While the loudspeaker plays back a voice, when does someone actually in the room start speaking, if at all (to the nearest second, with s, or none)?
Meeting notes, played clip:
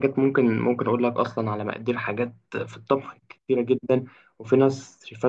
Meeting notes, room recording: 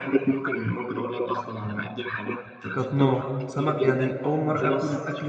3 s